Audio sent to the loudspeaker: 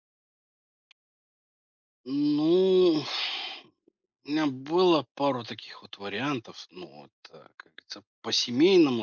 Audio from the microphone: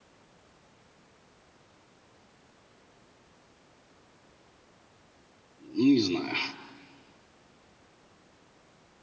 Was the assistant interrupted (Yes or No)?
Yes